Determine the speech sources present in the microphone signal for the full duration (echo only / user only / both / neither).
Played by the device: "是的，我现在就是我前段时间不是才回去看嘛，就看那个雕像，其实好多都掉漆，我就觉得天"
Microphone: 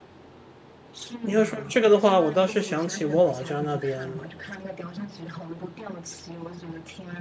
both